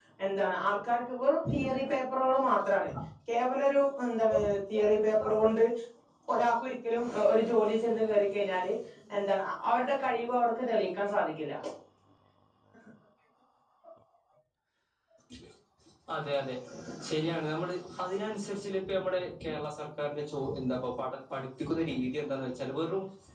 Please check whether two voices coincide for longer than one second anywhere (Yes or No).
No